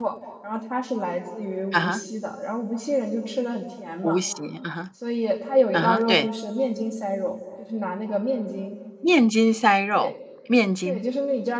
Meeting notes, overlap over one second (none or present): none